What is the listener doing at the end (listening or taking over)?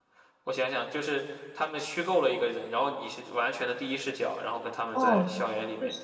taking over